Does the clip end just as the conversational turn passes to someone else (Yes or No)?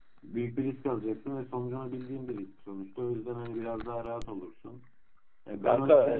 Yes